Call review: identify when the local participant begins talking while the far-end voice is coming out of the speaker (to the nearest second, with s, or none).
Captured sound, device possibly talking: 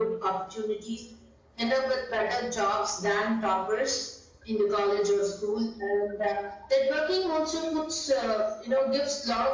none